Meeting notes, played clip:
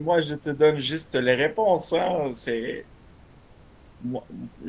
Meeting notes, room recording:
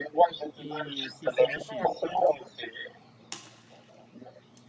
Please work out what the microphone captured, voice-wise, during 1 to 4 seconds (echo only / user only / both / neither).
both